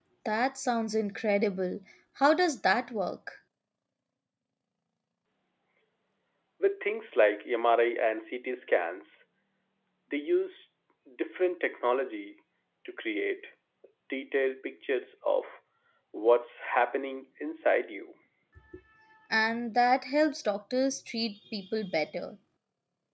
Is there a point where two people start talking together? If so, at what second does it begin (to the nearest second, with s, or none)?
none